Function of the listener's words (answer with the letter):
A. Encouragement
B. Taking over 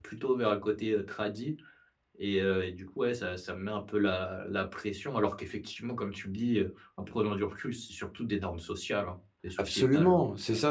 B